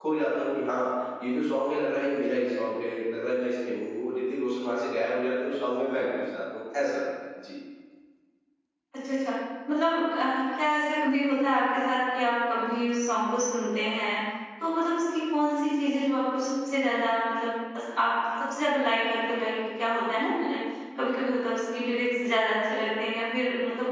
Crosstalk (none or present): none